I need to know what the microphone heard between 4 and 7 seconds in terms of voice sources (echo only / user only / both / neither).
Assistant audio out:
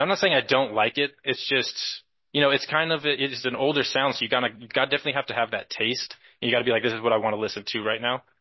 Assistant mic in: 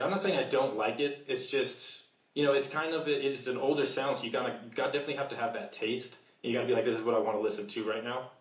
echo only